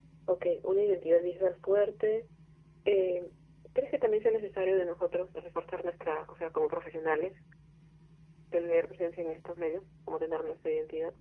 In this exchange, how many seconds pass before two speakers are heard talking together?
none

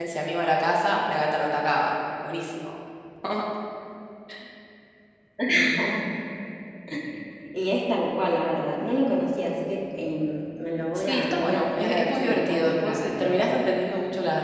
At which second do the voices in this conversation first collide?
10.9 s

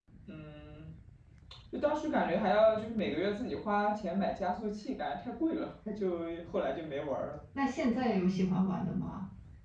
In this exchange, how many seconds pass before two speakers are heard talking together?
none

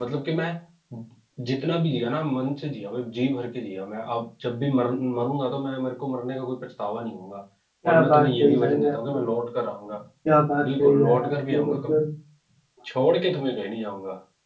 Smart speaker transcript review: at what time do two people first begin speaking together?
7.8 s

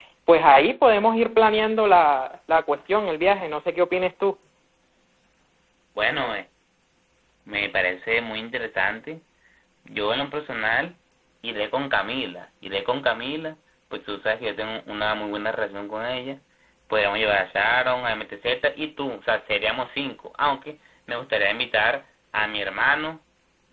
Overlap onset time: none

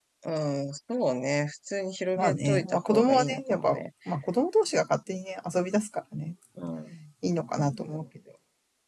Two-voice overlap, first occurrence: 2.2 s

